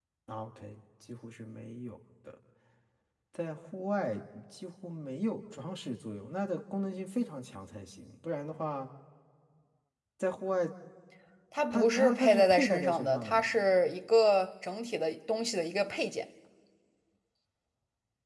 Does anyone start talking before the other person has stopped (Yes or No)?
Yes